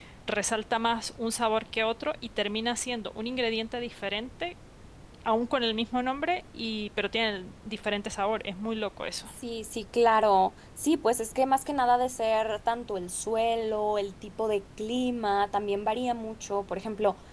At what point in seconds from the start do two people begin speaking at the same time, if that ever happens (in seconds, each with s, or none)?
none